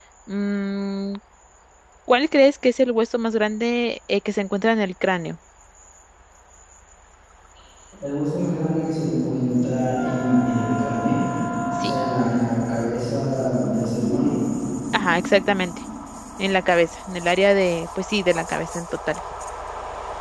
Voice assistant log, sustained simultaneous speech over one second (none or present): none